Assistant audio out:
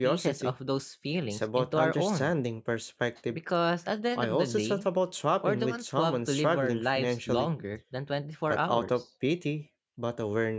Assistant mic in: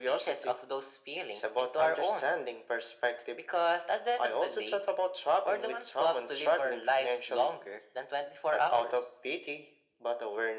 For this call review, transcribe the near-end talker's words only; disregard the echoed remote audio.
none

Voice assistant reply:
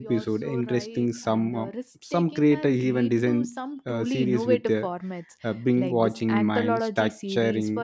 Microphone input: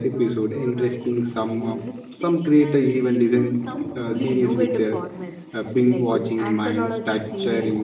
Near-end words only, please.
none

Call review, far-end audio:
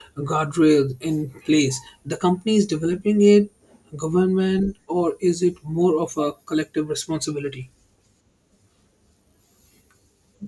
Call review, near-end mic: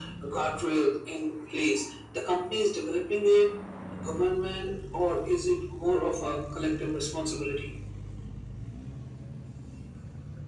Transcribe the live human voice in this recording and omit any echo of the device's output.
none

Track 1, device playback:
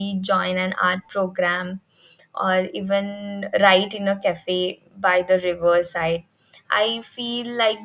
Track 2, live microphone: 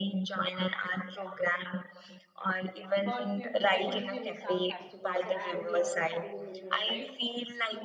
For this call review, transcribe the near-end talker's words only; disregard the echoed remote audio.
but we would definitely miss our festivals uh, and the other family members, right?

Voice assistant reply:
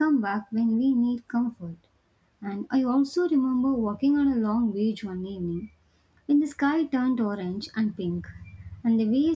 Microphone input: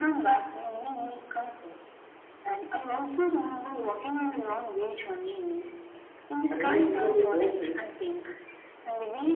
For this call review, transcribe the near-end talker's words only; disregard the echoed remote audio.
And when I think about those trips,

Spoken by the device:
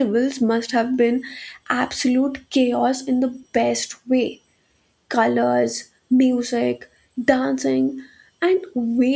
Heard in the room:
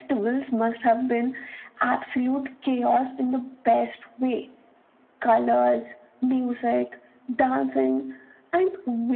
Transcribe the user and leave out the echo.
none

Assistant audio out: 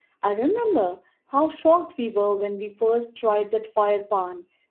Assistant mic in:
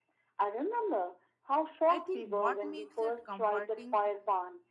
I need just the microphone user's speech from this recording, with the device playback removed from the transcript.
I think what makes it comforting

